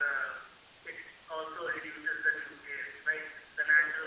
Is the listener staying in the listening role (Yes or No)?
No